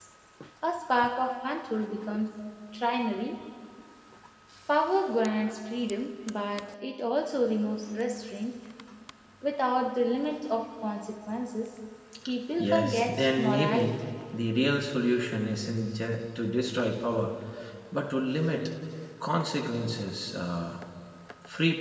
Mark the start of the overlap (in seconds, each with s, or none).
12.6 s